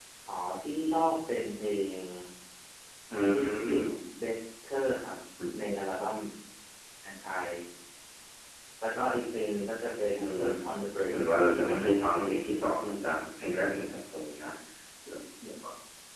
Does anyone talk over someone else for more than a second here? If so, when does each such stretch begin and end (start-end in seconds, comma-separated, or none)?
11.1-13.0